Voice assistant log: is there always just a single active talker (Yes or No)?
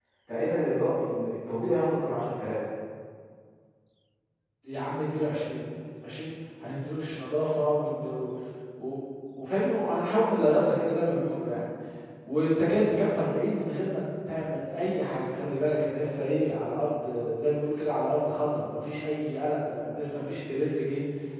Yes